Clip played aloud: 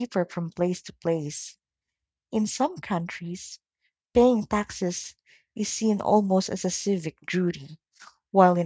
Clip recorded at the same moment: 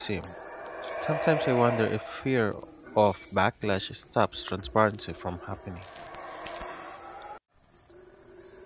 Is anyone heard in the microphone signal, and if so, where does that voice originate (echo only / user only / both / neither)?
user only